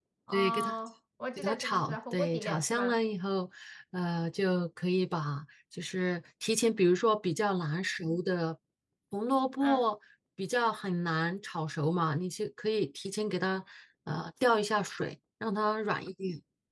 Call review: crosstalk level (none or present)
present